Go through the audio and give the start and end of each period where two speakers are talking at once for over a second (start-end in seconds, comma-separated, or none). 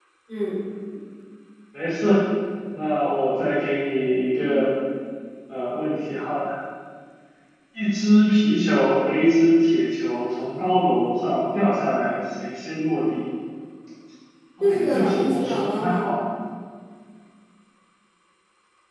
14.6-16.1